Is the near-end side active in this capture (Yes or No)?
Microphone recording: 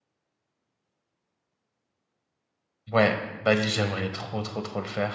Yes